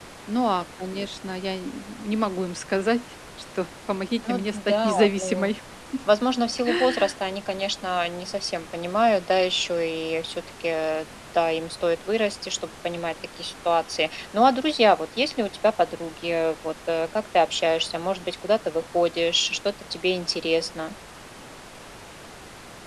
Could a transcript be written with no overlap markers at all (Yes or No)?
No